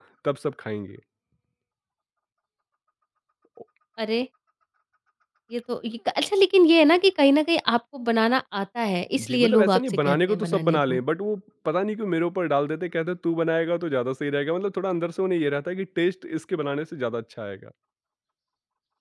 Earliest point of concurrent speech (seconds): 9.1 s

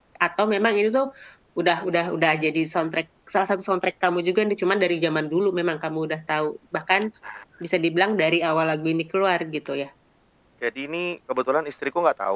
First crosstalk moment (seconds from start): none

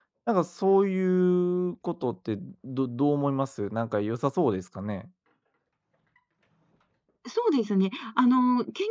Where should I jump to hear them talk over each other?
none

